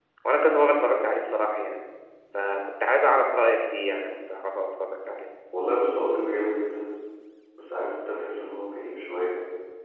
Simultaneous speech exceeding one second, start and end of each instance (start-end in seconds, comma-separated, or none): none